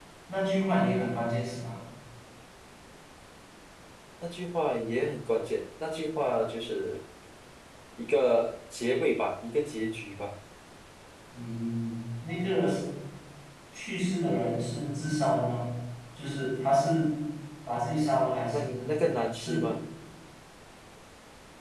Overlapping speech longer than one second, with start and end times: none

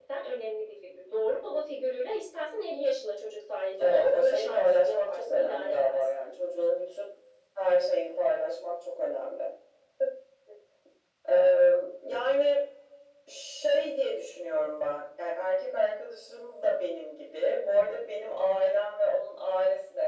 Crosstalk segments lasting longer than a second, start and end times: 3.8-6.1

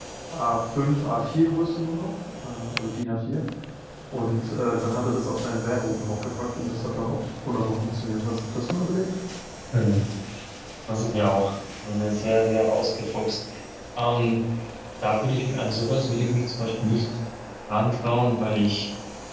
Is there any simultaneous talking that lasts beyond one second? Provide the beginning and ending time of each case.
none

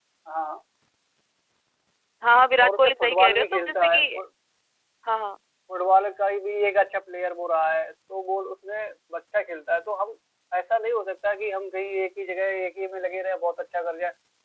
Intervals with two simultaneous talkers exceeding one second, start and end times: 2.6-4.0

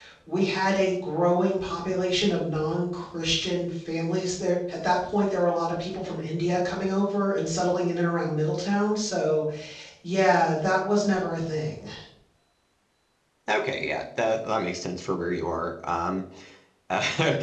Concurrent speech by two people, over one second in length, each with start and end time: none

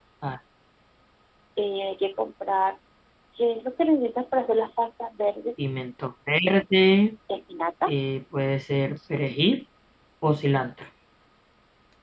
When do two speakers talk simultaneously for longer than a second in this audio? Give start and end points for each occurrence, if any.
none

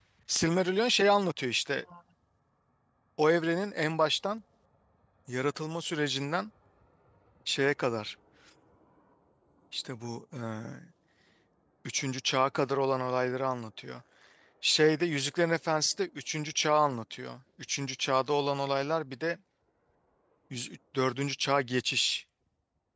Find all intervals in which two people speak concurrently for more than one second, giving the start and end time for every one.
none

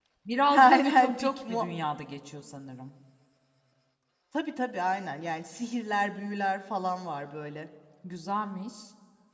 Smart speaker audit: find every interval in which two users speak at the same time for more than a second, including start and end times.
0.6-1.8

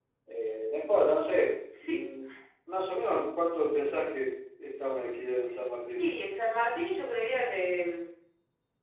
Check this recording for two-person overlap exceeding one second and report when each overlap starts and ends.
none

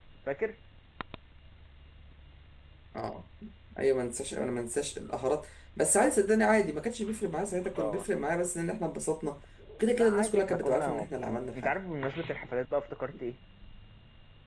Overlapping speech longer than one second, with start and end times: 10.0-11.7

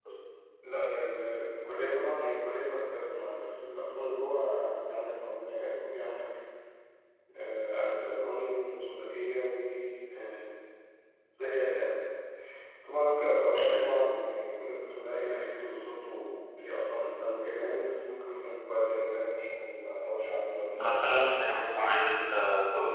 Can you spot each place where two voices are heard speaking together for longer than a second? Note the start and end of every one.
none

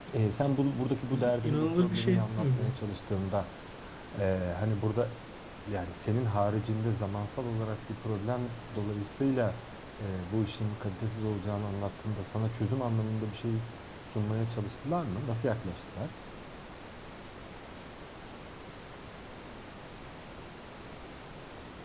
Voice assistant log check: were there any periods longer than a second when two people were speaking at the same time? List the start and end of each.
1.1-2.7

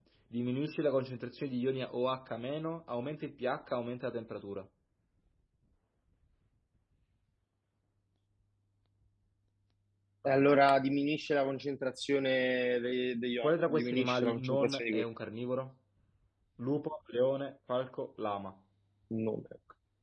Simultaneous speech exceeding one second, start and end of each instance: 13.4-15.0

